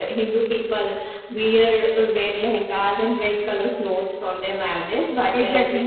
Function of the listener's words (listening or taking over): taking over